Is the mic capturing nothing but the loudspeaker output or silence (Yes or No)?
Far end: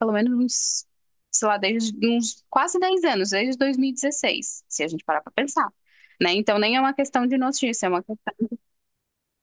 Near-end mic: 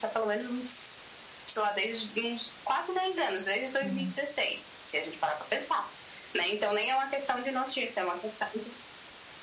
No